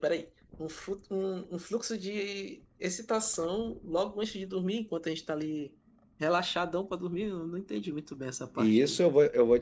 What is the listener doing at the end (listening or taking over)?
taking over